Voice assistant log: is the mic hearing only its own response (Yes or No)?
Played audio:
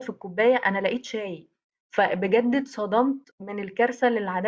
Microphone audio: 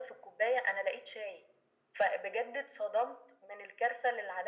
Yes